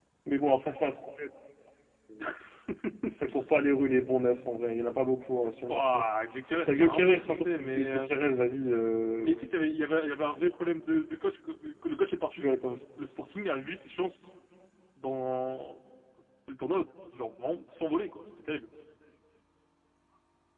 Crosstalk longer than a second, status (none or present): present